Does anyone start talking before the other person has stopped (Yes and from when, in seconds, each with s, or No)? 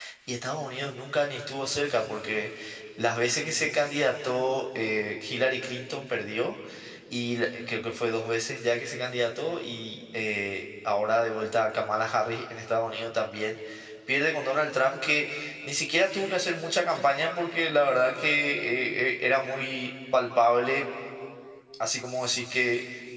No